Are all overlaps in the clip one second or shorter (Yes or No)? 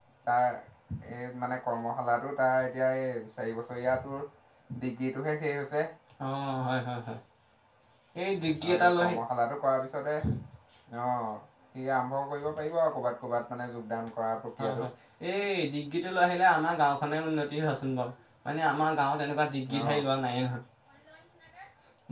Yes